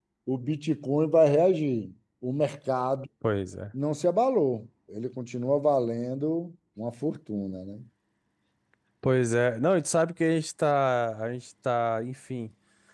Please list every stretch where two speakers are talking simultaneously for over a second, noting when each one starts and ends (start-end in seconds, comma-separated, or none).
none